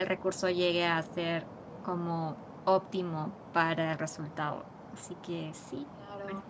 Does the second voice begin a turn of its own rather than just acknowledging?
Yes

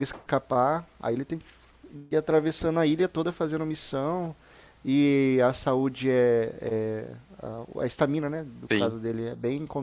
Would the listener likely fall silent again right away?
Yes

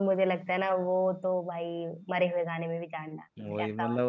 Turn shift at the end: Yes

